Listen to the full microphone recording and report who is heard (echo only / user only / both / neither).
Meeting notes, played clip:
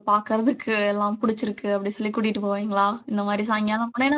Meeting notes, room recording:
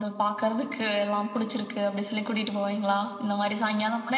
echo only